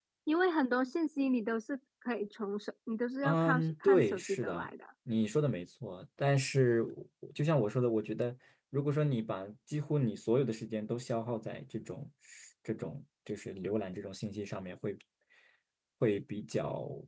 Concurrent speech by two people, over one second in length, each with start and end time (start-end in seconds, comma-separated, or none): 3.2-4.7